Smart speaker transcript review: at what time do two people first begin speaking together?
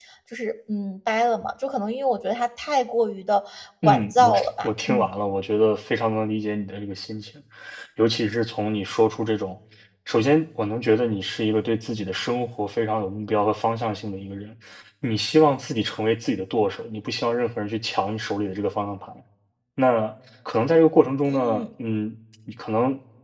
3.8 s

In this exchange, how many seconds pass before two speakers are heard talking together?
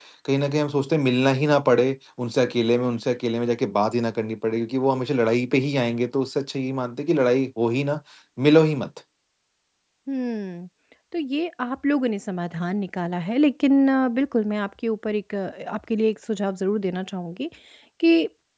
none

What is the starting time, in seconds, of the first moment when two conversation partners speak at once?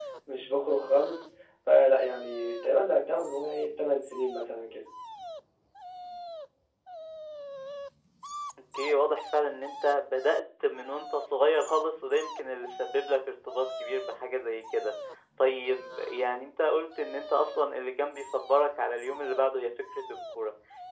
none

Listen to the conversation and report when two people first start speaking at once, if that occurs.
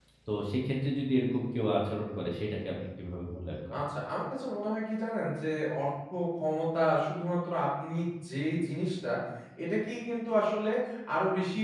none

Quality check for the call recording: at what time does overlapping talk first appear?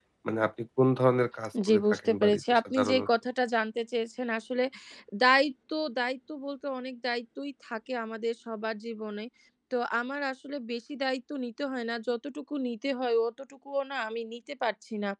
1.5 s

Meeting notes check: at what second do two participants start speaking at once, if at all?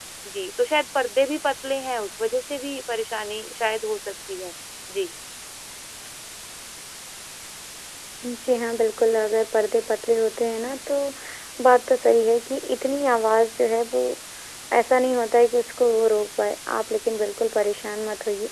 none

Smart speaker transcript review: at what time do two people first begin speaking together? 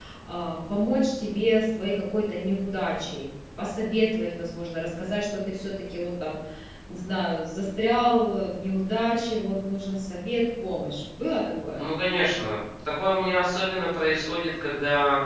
none

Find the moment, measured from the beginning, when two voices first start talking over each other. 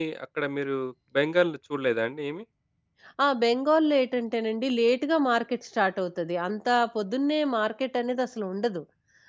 none

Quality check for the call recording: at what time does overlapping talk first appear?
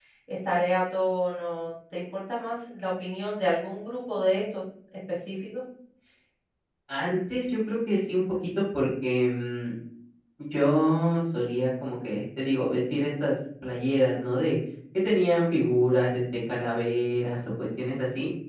none

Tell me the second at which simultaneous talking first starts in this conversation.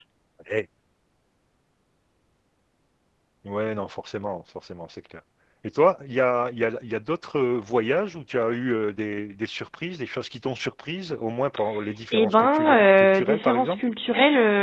12.1 s

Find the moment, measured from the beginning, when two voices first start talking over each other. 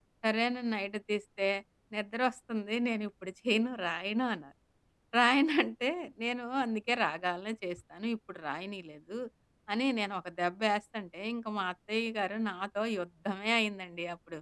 none

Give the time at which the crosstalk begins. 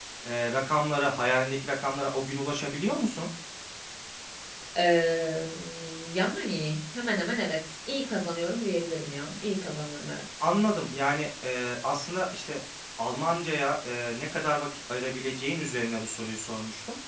none

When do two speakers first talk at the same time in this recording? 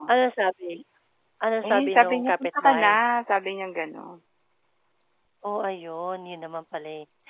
1.7 s

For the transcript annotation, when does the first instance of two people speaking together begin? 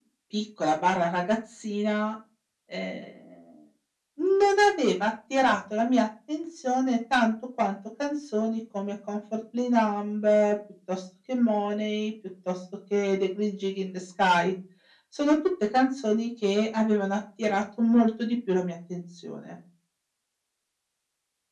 none

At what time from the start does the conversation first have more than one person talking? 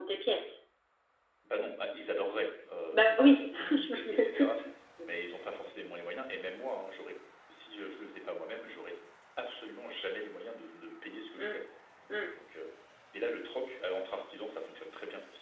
2.9 s

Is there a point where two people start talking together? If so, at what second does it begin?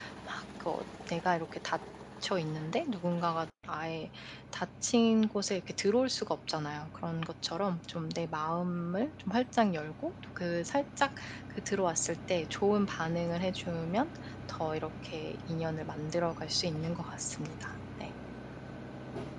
none

